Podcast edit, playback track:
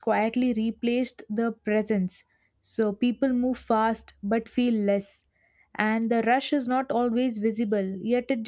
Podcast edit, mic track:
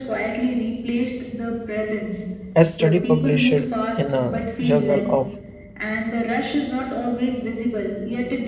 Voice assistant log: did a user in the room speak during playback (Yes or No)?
Yes